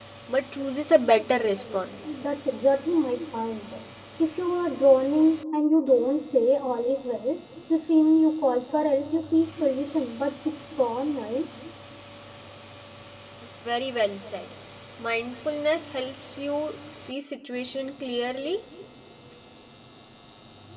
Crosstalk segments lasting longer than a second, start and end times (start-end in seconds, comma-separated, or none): none